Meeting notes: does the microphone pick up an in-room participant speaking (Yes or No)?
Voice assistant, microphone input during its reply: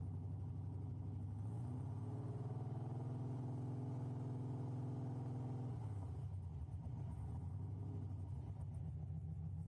No